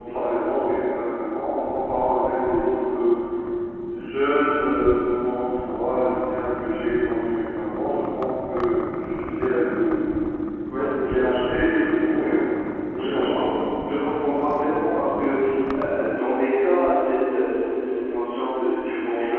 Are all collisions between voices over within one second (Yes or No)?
Yes